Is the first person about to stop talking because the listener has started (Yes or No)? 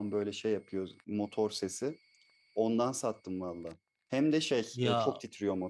No